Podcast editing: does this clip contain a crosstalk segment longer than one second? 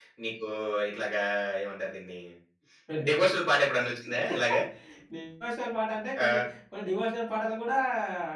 No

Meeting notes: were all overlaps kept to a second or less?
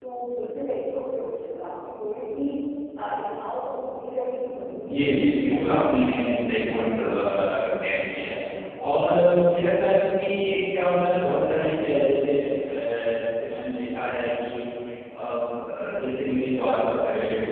No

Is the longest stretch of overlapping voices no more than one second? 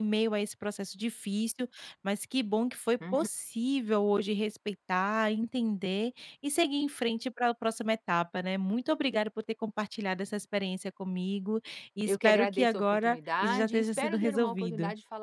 No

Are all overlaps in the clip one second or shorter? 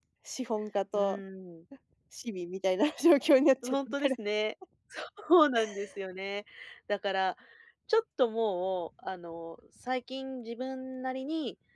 Yes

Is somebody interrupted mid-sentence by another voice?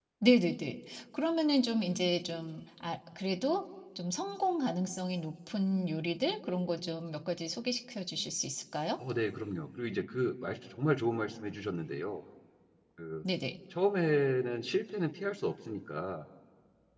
No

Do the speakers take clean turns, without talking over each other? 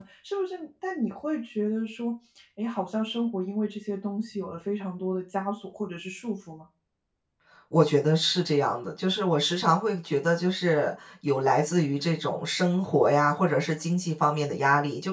Yes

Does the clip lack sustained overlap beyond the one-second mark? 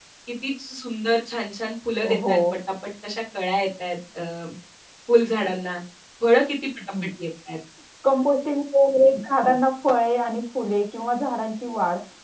Yes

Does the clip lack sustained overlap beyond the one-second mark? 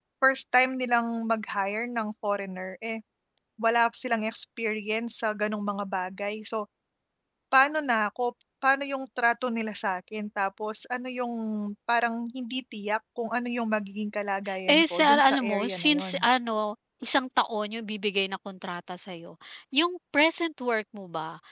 No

